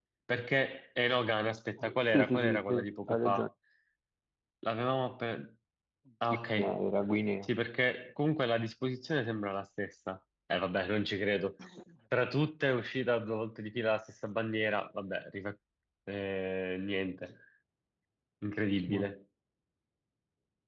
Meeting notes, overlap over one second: present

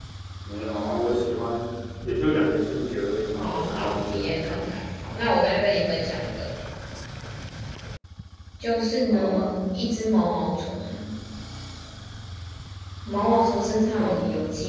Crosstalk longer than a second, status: present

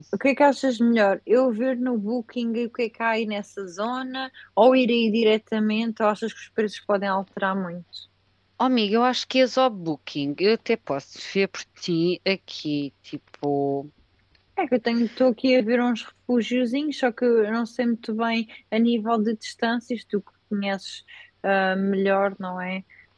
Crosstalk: none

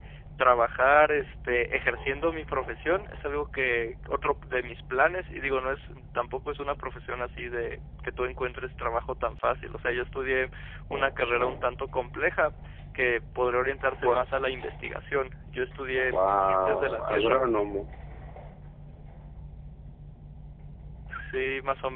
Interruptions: present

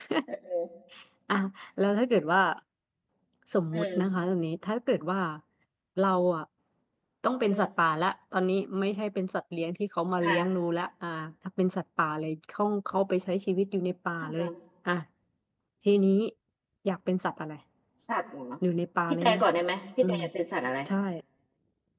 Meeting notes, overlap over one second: none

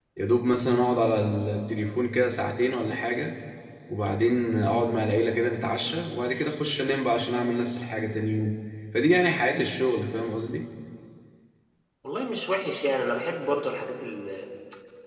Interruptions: none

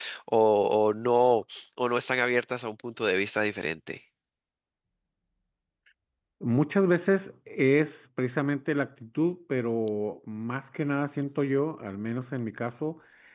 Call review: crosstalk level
none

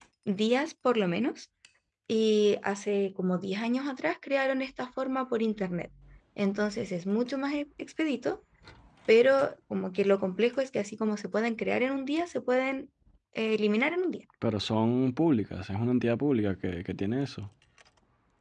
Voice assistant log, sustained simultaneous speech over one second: none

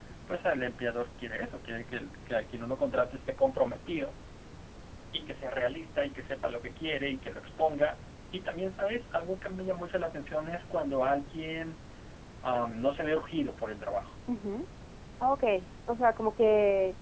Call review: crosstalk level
none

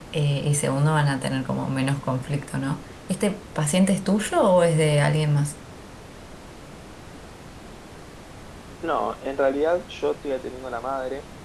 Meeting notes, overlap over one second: none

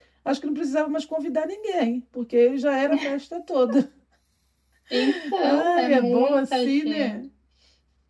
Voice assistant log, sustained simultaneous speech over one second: present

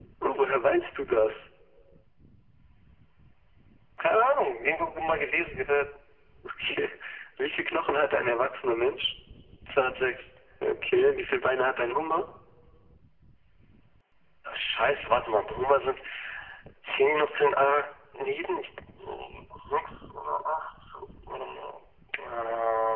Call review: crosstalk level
none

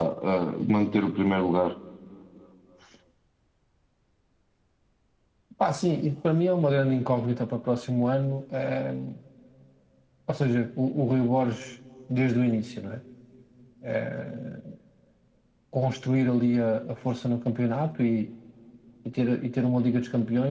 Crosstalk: none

